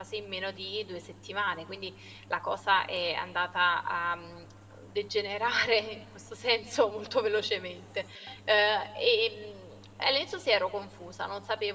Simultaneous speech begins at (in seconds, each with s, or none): none